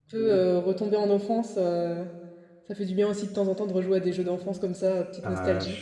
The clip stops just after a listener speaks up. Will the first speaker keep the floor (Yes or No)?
No